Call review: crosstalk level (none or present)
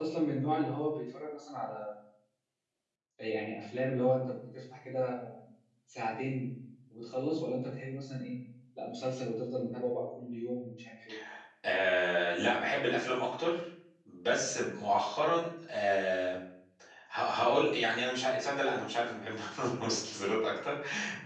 none